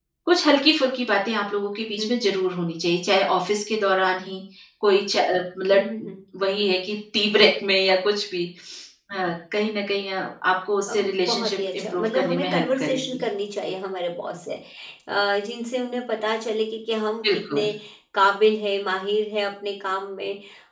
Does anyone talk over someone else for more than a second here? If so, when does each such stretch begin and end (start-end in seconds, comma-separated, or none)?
10.9-13.0